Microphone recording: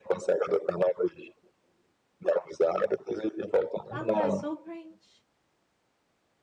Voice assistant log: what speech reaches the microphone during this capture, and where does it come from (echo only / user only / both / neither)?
both